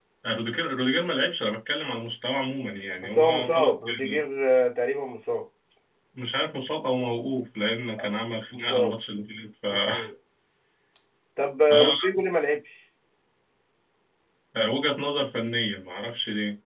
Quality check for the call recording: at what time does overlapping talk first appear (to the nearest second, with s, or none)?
3 s